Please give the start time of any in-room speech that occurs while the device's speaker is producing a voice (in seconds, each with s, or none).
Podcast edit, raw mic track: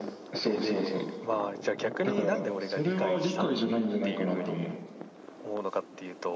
0.4 s